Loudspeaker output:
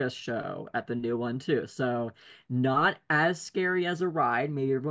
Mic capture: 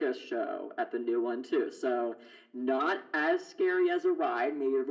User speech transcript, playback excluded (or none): none